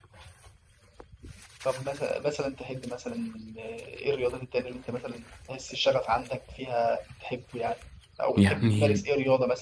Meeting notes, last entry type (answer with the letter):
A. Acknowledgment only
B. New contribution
A